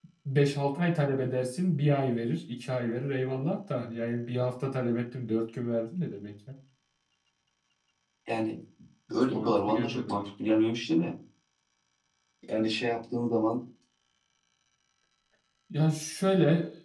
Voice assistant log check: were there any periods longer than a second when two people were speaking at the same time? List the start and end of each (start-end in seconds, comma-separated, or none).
9.1-10.3